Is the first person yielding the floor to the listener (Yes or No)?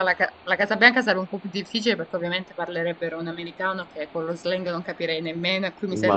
Yes